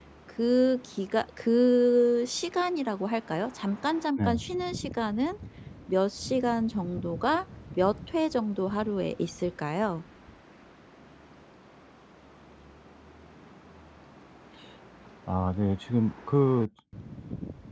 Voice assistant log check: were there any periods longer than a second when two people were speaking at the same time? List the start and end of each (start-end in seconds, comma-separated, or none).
none